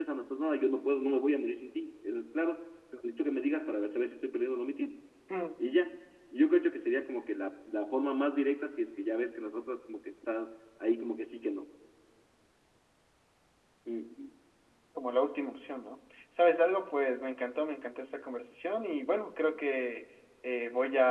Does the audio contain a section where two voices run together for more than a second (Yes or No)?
No